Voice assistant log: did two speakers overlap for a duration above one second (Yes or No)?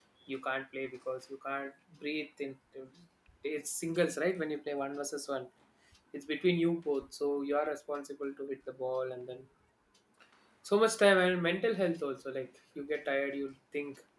No